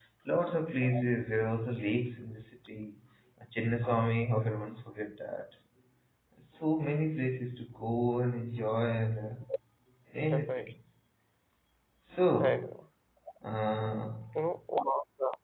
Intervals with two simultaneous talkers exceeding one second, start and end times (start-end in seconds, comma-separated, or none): none